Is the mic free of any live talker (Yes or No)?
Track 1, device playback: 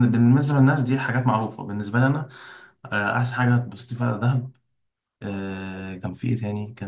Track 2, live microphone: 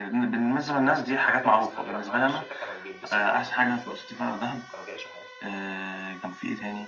No